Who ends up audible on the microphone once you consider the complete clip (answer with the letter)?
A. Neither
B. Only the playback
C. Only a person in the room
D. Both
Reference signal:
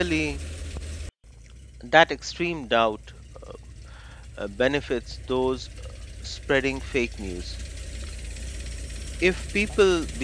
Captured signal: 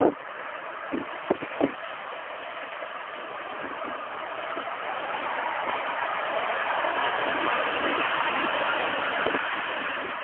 A